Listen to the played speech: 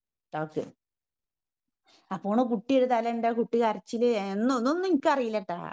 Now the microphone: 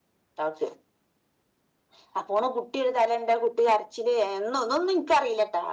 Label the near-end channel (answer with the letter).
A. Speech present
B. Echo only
B